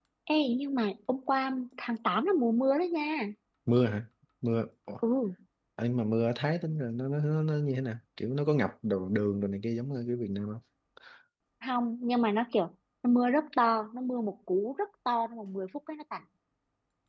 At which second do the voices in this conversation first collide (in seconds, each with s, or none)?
none